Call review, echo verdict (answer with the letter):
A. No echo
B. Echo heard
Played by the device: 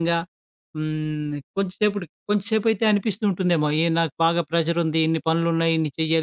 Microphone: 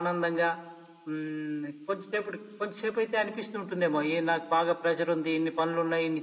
B